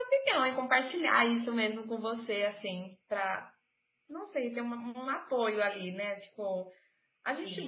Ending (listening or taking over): listening